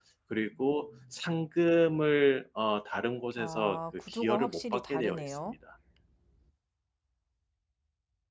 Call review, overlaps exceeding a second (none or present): present